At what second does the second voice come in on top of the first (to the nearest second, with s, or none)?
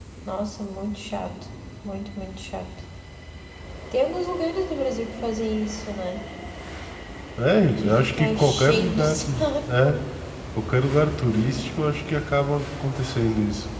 8 s